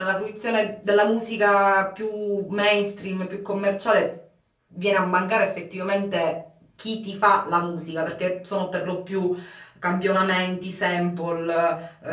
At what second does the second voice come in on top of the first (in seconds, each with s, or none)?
none